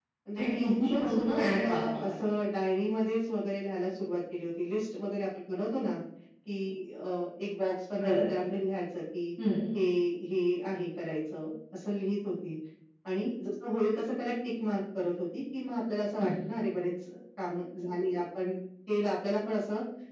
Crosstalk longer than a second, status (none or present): present